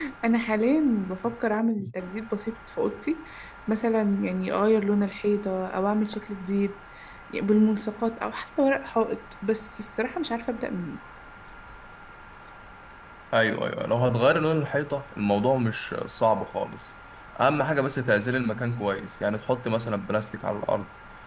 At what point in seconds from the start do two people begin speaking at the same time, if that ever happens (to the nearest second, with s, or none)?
none